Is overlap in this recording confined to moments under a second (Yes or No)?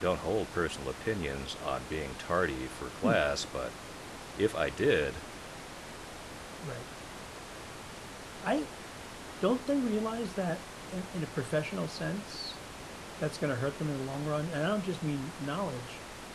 Yes